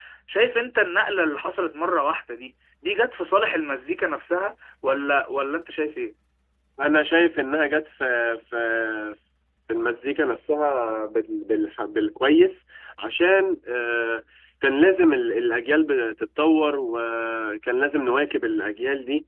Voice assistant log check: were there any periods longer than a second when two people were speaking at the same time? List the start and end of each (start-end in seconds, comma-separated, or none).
none